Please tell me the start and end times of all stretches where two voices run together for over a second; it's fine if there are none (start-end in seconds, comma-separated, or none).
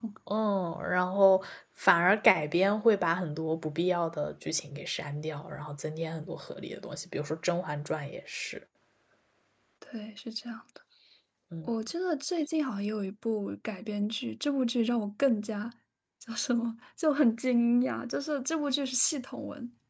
none